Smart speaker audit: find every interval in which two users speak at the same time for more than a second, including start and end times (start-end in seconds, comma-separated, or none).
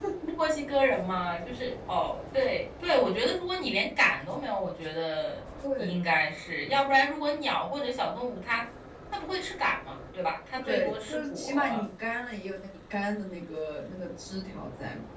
10.6-11.8